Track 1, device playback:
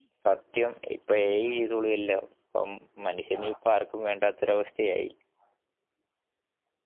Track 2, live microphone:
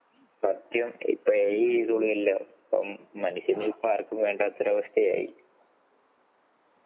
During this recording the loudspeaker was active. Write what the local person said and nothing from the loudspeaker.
none

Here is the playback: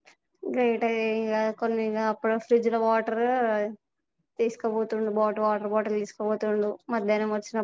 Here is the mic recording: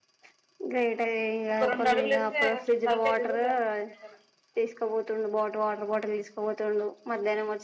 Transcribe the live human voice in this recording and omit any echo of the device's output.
ఒక రెండు అడుగులు వస్త అసలు తల్కాయ జరుగుతు అద నా కేందల

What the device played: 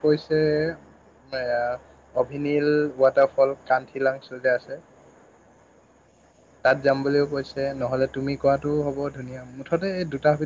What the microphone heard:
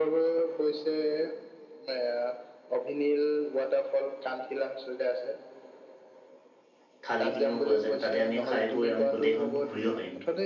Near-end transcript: থালি কিনিব পৰা যায় তাতে আমি খাই বৈ আমি গোটেইখন ঘূৰিব পাৰিম

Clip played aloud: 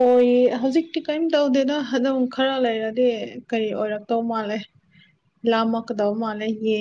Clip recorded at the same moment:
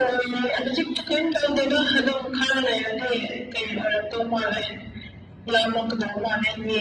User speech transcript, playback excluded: none

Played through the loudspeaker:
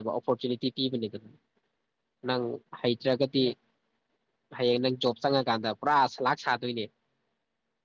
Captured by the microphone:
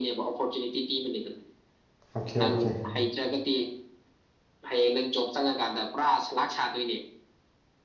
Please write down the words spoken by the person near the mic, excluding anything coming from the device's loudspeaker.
ꯑꯣꯀꯦ ꯑꯣꯀꯦ

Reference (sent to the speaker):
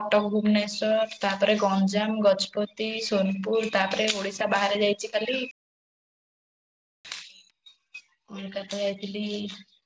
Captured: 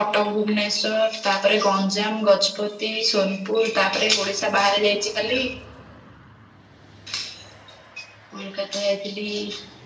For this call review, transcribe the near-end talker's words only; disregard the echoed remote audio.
none

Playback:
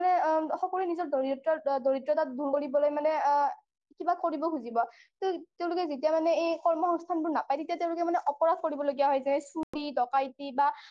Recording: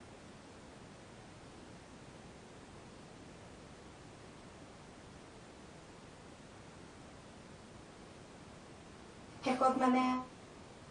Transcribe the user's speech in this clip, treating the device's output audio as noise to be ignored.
শেষত মানে

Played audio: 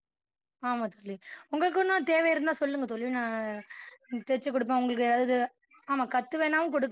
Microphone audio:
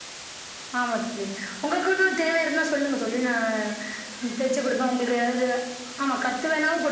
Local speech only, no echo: none

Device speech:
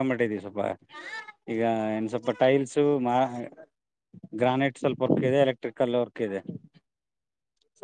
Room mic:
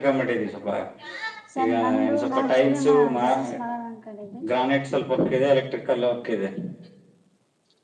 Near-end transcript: ಸರ್ ನಂದು ನಾನ್ ಸೀರೆಮಾ ಬಿಸ್ನೆಸ್ ಮಾಡಣ ಅನ್ಕೊಂಡಿದ್ದೆ.

